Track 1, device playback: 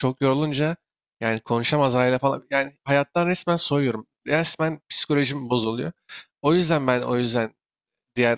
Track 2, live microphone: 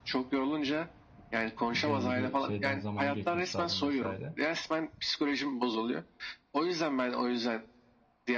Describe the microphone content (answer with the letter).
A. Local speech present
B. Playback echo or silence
A